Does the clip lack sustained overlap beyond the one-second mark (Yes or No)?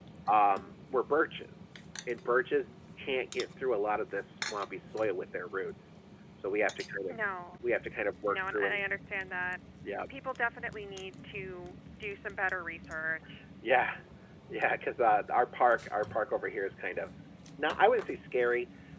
Yes